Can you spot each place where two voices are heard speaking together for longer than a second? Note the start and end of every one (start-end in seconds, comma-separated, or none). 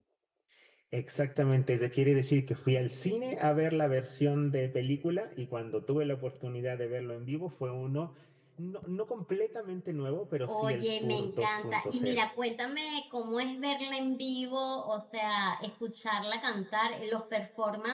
10.5-12.2